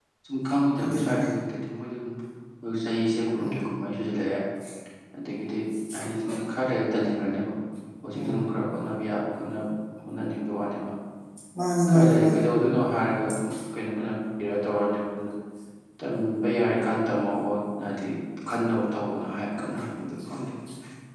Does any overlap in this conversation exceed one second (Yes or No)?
No